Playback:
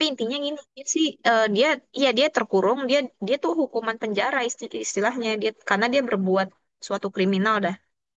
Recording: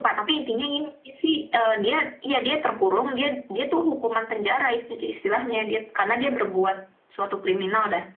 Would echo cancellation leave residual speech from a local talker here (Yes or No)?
No